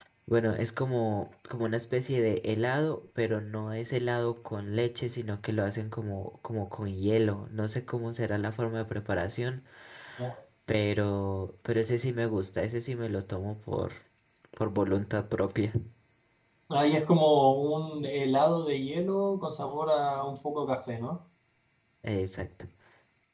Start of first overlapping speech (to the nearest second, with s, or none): none